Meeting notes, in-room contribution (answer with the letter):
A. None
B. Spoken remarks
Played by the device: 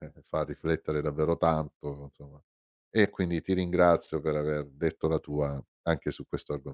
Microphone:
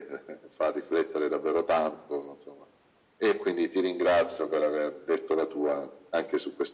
A